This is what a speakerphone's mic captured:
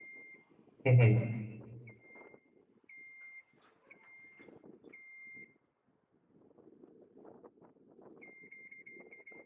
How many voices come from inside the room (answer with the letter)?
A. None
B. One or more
B